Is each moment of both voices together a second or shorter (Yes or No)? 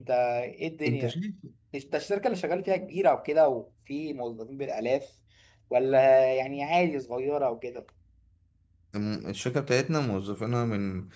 Yes